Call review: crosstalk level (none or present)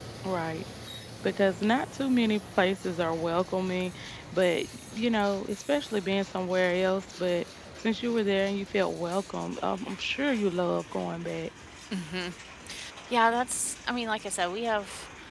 none